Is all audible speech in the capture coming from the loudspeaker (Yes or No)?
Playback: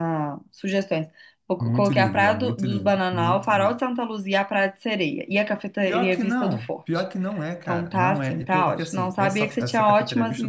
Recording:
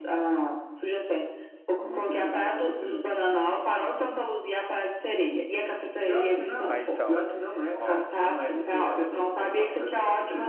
No